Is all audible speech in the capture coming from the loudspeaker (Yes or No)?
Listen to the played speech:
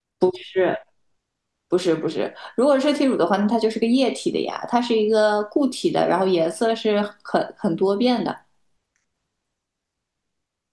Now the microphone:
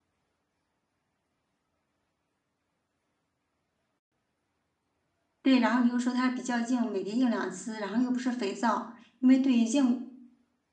No